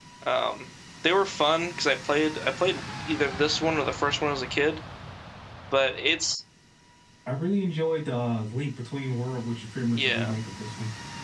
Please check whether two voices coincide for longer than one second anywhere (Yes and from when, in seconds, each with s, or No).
No